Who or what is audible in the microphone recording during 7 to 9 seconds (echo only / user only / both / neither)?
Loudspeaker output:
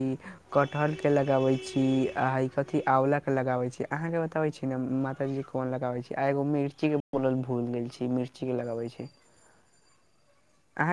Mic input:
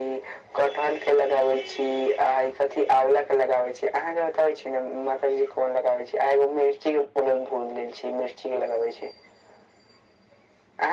echo only